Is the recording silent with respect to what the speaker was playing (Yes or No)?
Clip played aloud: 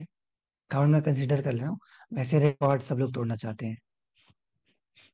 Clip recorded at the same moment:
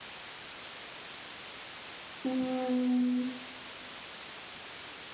Yes